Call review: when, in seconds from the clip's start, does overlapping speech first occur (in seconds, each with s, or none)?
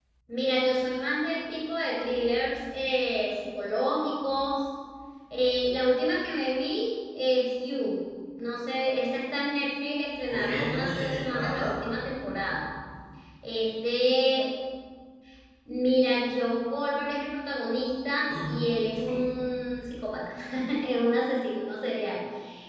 10.3 s